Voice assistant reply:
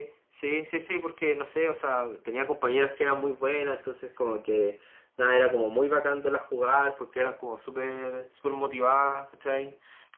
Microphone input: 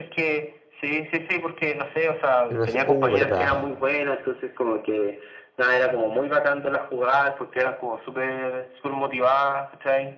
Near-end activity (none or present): present